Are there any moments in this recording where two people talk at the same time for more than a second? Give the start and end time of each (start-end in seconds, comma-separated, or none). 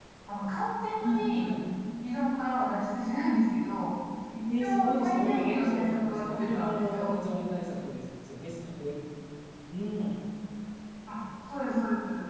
4.6-7.1